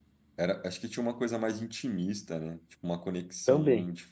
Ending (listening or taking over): listening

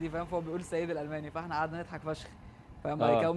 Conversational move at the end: listening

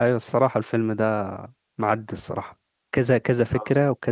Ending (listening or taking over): listening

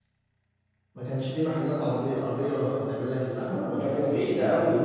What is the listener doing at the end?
taking over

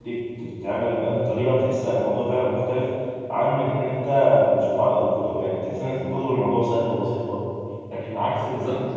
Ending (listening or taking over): taking over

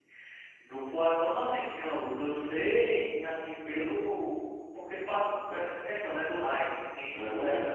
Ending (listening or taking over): taking over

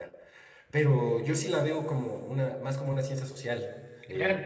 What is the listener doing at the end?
taking over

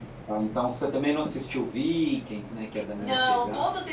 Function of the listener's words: taking over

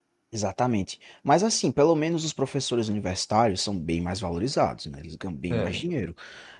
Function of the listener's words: listening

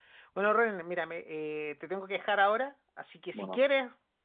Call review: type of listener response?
listening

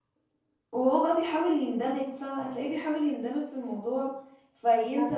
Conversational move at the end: taking over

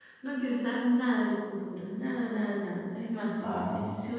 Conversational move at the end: listening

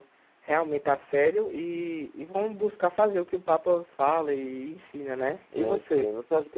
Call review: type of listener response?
taking over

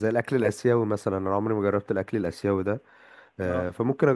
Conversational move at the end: listening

